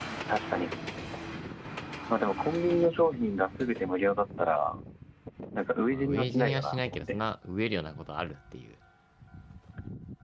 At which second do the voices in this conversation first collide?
5.9 s

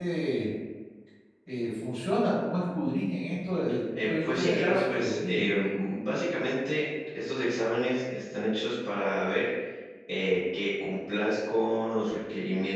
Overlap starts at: 4.0 s

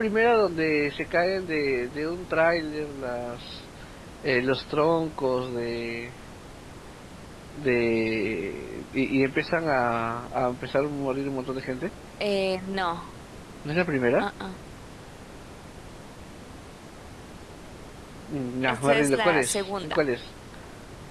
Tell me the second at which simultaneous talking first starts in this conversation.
18.7 s

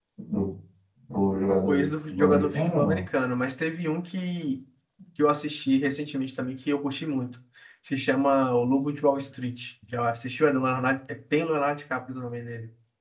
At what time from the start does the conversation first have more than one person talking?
1.7 s

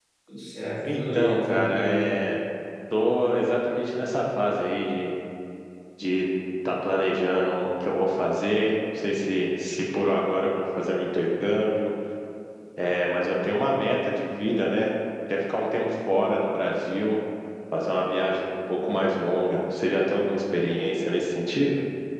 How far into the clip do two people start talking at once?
0.8 s

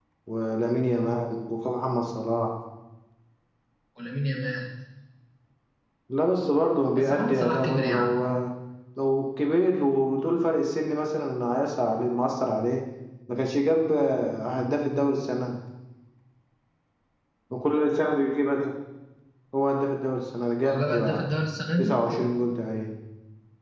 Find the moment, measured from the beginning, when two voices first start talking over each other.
6.9 s

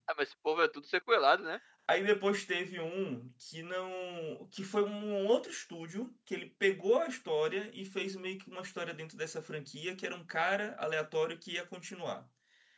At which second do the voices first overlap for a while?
none

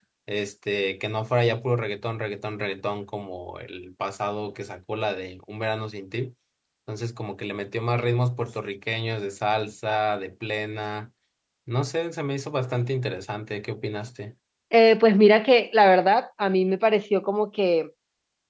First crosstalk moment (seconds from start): none

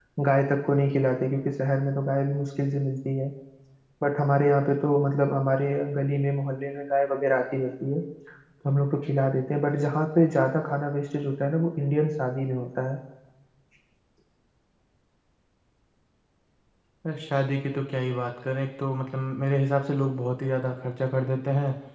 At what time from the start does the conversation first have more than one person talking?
none

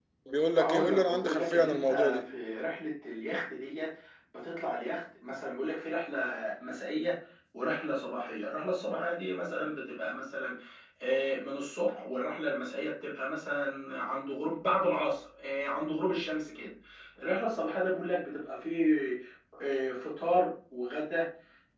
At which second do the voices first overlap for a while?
0.6 s

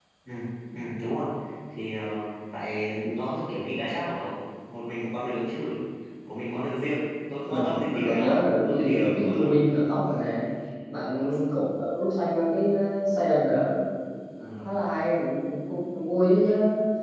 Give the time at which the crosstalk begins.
7.5 s

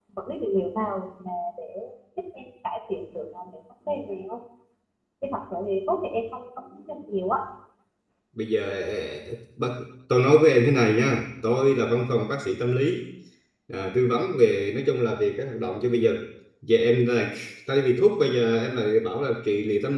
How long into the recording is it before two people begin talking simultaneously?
none

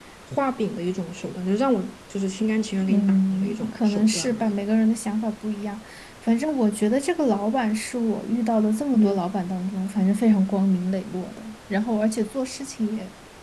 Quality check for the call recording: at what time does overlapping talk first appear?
2.8 s

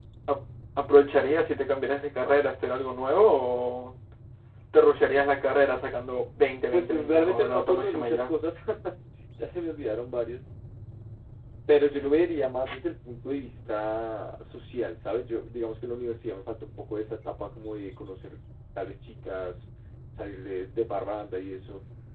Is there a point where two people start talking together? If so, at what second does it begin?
6.7 s

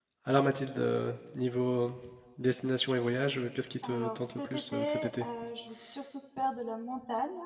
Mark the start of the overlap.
3.8 s

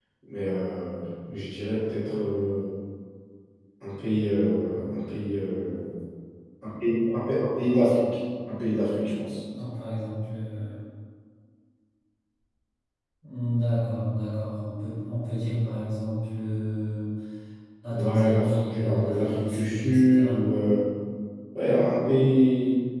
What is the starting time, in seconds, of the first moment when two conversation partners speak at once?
17.9 s

